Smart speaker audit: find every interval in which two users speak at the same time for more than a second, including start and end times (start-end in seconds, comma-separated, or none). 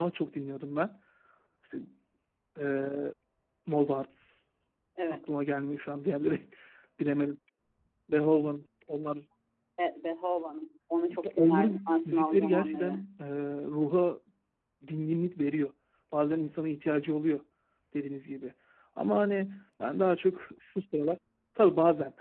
11.4-13.1